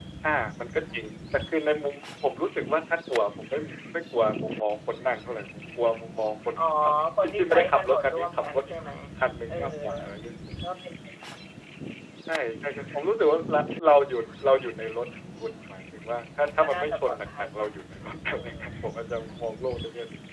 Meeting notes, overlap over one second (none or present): present